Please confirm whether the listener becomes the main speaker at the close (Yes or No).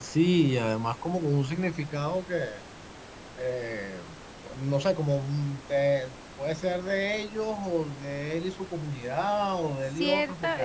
Yes